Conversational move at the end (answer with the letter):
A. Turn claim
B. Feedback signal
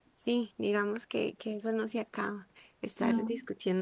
B